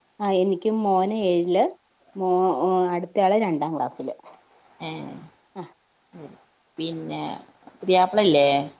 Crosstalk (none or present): none